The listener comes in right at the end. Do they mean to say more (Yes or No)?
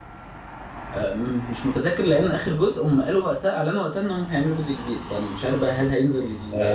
Yes